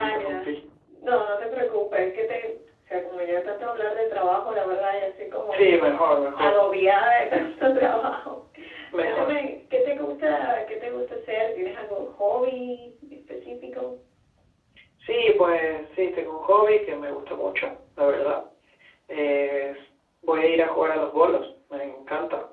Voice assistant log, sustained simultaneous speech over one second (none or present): none